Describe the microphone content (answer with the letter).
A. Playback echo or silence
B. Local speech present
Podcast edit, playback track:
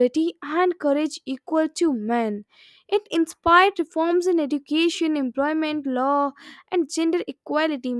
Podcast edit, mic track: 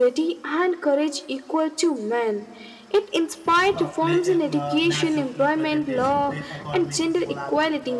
B